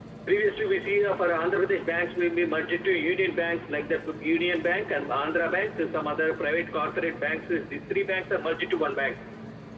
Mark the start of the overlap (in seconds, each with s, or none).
none